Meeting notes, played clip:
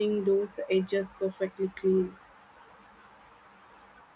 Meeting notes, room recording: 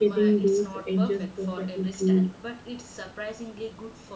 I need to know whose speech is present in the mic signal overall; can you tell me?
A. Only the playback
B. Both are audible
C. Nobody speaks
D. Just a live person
B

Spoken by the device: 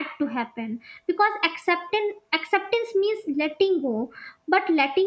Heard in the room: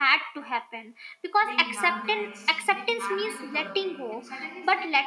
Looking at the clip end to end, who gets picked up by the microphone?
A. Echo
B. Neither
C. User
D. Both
D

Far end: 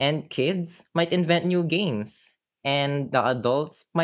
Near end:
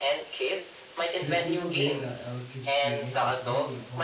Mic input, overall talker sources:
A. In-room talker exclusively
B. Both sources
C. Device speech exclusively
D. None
B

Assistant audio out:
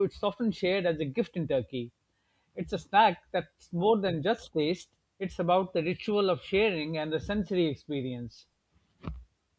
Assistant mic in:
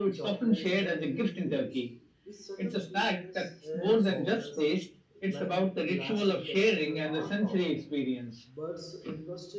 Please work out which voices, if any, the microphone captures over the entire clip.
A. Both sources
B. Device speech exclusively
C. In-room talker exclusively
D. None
A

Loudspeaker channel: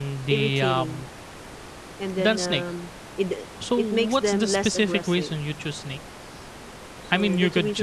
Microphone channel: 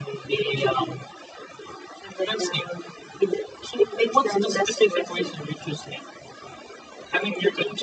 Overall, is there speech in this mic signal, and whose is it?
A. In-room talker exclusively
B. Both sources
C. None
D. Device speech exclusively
D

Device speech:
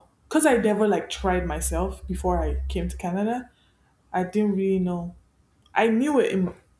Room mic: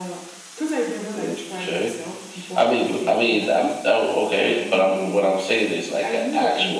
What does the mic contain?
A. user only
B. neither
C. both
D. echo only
C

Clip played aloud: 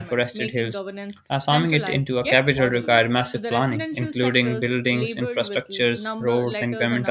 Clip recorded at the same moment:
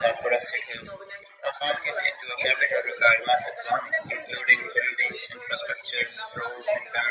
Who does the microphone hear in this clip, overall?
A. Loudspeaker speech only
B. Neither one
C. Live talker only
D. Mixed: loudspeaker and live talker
A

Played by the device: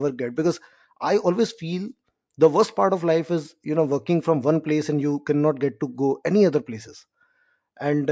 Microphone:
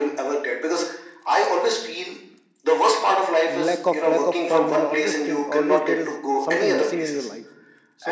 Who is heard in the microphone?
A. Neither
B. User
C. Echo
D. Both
D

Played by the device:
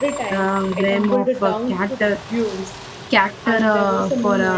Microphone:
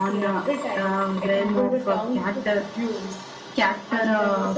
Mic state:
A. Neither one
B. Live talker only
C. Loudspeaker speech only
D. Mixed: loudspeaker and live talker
C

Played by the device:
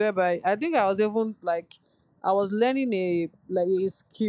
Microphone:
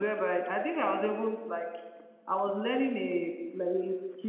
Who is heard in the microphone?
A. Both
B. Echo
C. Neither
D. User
B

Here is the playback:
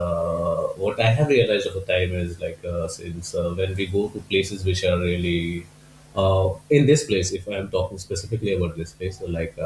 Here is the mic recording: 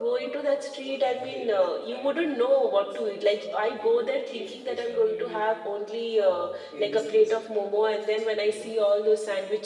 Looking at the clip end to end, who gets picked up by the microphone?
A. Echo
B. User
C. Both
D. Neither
C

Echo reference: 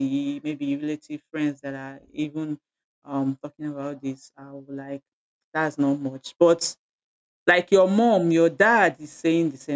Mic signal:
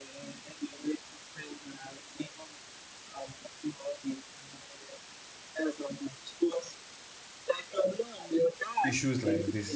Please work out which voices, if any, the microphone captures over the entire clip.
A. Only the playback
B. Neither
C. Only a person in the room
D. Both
D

